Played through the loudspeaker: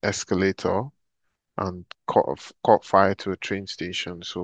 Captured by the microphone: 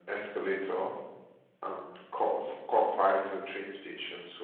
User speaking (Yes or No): No